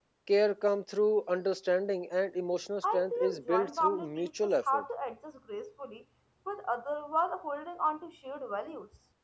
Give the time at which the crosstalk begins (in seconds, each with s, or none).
2.8 s